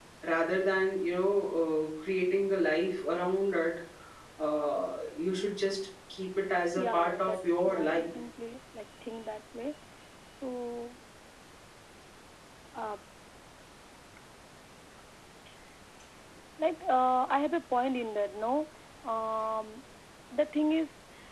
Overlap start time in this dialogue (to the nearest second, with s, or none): 7 s